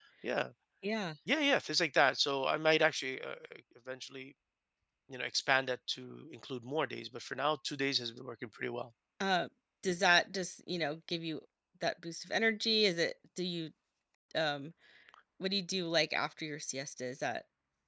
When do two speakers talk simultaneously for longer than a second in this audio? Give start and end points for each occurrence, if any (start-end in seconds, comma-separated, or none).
none